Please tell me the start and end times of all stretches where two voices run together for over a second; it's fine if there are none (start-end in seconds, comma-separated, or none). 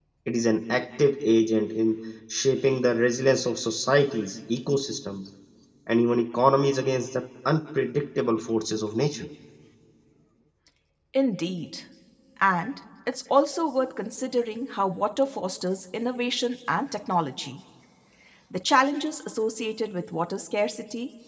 none